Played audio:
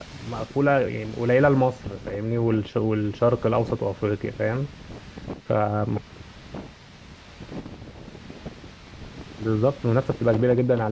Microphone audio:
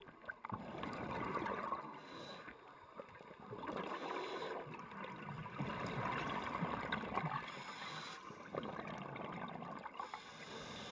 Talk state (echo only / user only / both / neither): neither